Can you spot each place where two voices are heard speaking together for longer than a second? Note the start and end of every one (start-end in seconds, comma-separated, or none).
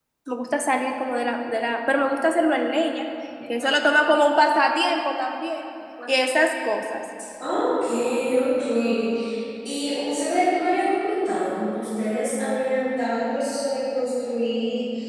none